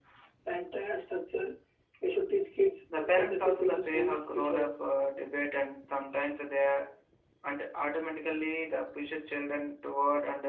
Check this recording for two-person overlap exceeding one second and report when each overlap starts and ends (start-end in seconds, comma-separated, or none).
3.0-4.7